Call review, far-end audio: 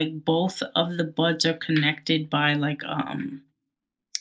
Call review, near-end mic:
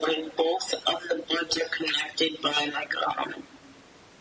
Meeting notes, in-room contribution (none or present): none